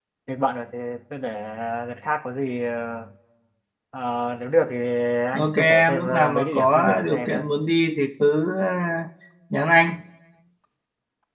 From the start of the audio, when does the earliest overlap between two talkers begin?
5 s

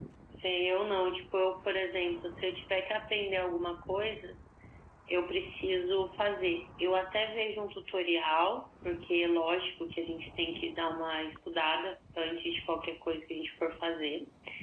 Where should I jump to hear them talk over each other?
none

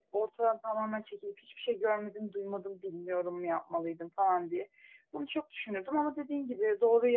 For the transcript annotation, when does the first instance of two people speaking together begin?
none

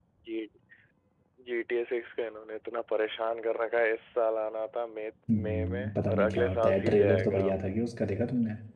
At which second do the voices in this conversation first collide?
5 s

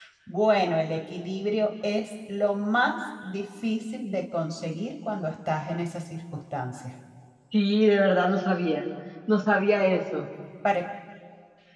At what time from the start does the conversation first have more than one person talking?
none

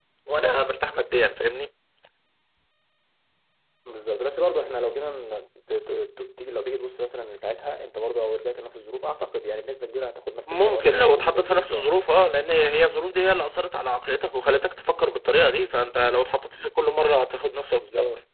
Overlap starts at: 10 s

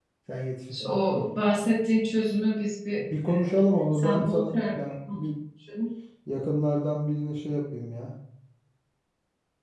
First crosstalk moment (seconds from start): 3 s

